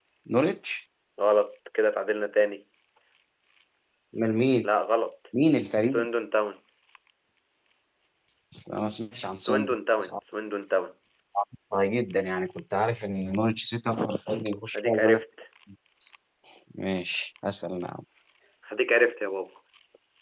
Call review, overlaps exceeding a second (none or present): none